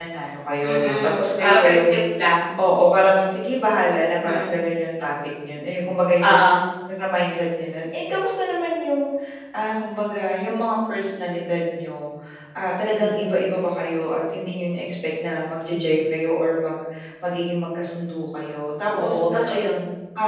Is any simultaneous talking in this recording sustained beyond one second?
Yes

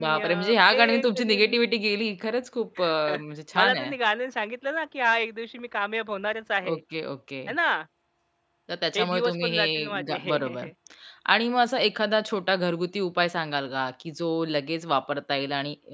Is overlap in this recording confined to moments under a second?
No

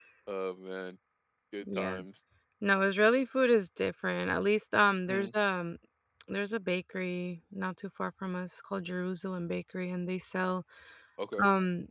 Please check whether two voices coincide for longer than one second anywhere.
No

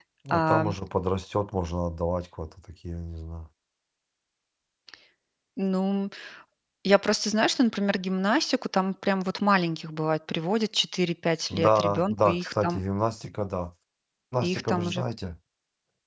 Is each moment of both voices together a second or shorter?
No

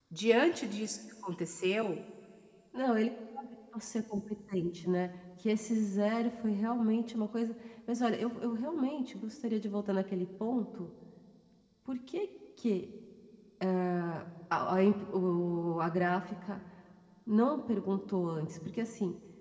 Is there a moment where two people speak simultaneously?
No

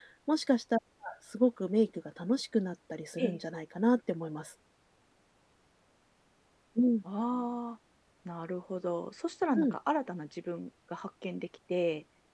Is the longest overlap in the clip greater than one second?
No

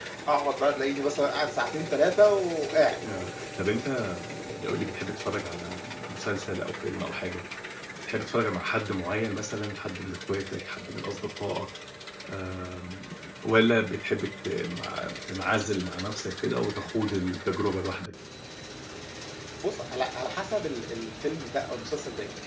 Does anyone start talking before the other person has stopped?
No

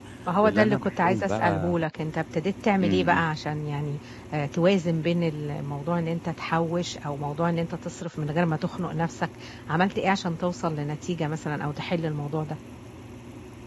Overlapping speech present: Yes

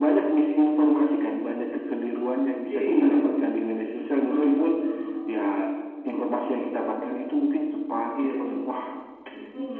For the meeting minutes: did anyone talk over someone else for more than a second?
No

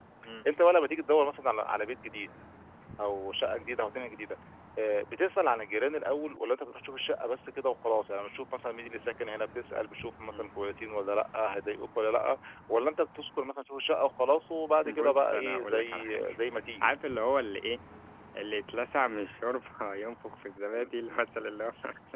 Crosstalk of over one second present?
Yes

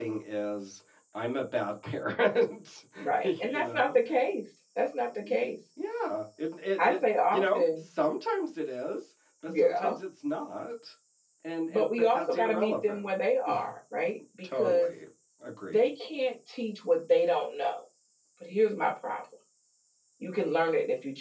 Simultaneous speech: Yes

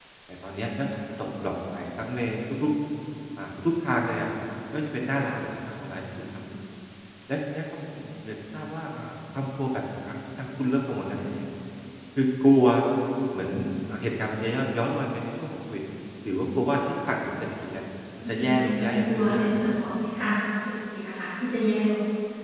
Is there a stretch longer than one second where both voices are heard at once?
Yes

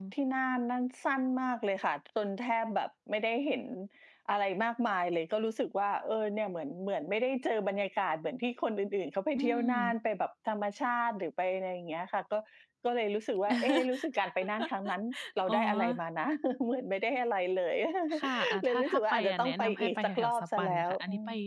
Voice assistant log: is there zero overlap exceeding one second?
No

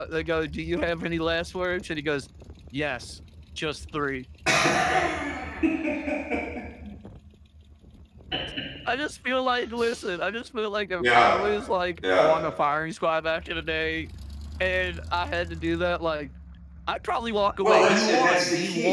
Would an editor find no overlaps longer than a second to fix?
No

